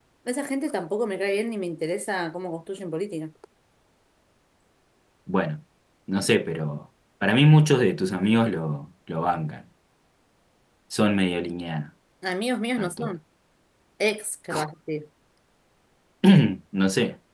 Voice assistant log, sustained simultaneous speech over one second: none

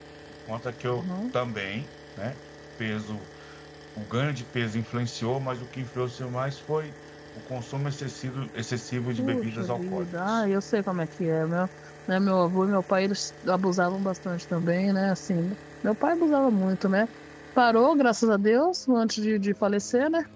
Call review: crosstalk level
present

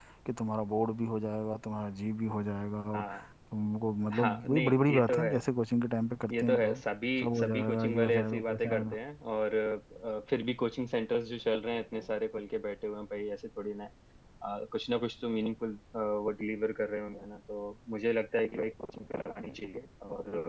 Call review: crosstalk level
present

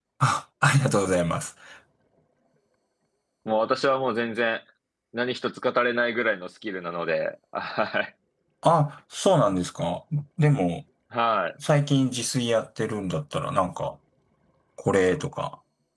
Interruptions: none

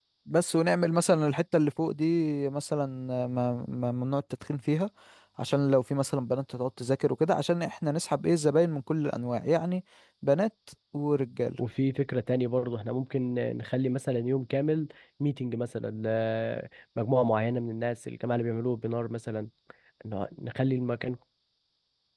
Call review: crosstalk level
none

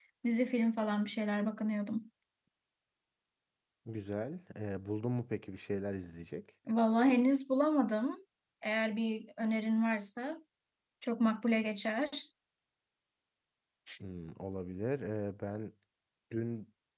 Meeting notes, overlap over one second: none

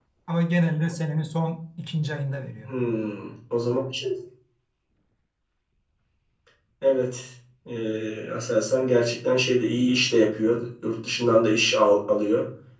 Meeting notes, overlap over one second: none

